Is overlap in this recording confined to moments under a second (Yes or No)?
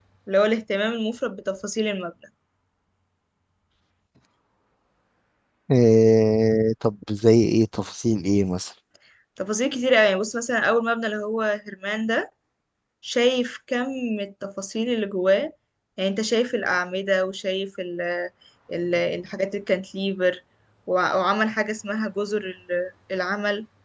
Yes